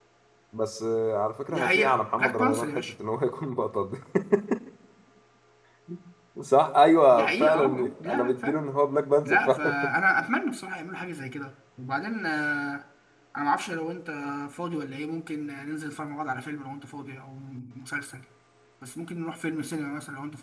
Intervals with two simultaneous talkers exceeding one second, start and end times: 1.5-2.9, 7.1-8.6

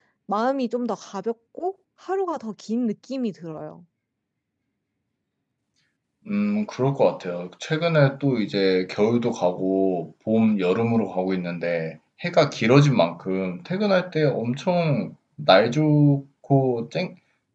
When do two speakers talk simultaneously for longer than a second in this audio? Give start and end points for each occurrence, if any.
none

